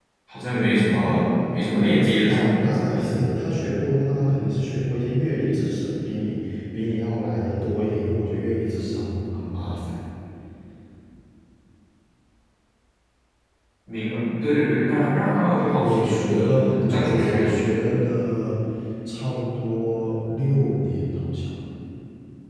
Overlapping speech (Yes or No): Yes